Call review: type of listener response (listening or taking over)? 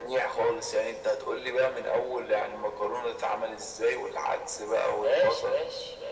taking over